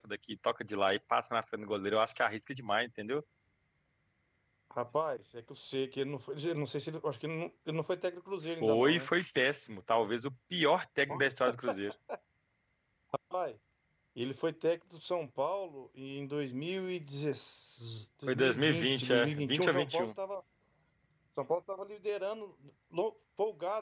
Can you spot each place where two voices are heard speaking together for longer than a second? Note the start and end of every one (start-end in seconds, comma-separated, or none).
18.3-20.1